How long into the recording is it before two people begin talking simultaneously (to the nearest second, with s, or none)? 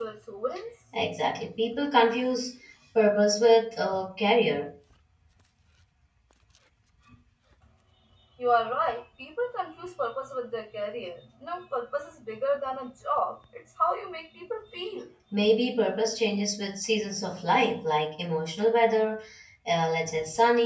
none